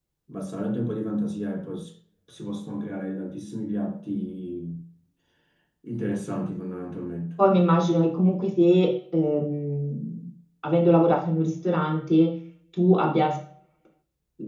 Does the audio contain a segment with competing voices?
No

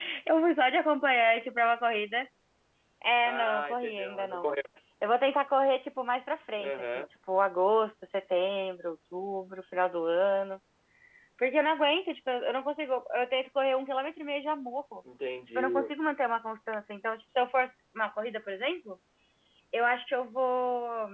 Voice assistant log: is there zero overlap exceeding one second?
No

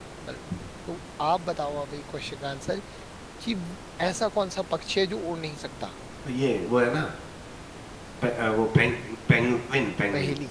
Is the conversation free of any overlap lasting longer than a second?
Yes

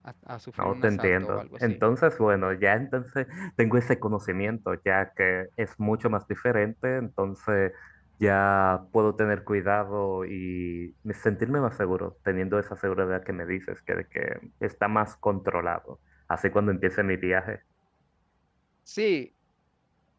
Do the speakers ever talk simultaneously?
Yes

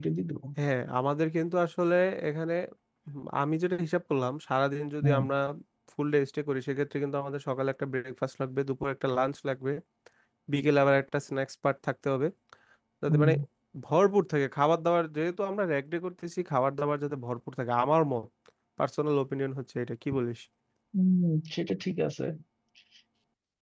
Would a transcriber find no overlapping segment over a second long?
Yes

